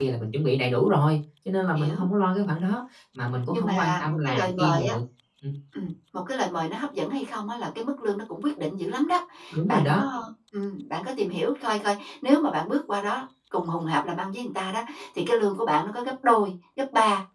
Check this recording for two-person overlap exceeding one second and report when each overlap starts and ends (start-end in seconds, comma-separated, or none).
3.5-4.9